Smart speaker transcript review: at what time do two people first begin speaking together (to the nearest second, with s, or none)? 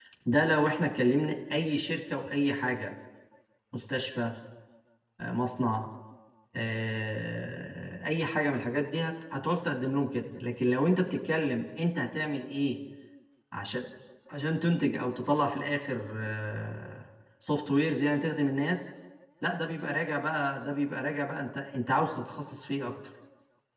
none